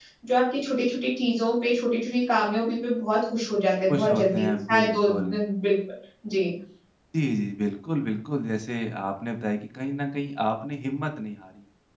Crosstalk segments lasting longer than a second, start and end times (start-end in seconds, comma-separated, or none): 3.9-5.4